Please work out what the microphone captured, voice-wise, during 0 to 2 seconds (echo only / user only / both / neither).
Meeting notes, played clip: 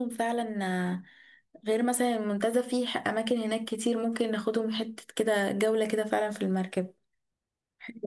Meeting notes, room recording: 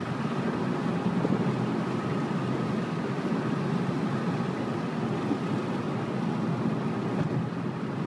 neither